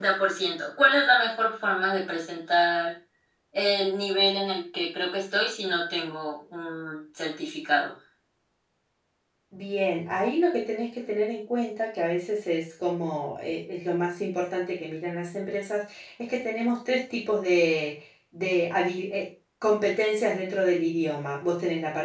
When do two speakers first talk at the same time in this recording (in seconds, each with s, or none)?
none